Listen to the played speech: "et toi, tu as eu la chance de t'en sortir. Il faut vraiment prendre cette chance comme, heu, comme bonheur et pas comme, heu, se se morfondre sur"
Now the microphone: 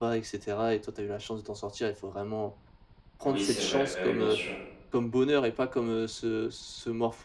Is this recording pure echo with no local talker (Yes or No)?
No